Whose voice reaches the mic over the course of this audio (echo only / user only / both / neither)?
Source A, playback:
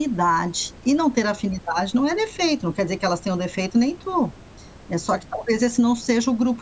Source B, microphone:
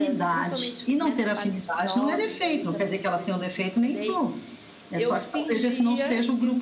both